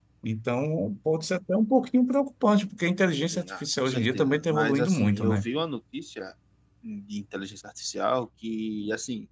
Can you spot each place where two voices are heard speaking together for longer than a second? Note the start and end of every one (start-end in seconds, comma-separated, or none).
3.3-5.5